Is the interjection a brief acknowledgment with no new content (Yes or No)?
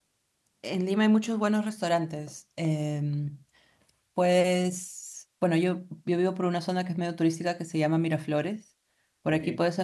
Yes